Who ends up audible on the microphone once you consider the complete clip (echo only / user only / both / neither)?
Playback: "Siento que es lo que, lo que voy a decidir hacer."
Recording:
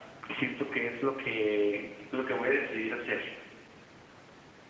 echo only